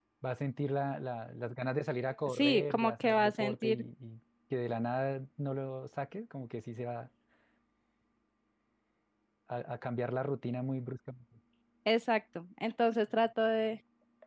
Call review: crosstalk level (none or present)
present